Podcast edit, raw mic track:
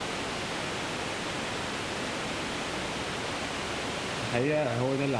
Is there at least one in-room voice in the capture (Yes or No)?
Yes